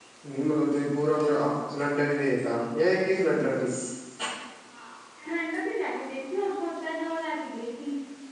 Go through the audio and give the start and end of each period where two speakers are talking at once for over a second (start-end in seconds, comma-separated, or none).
none